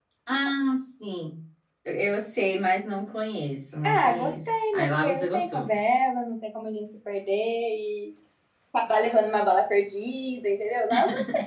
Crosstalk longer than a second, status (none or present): present